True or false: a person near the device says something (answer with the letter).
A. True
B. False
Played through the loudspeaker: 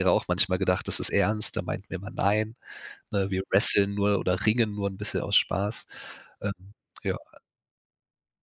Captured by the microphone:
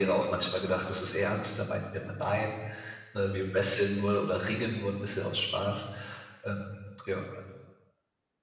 B